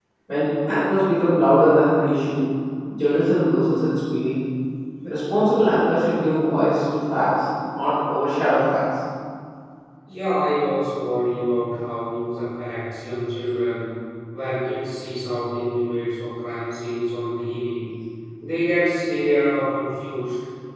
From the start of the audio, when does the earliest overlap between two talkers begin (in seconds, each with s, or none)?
none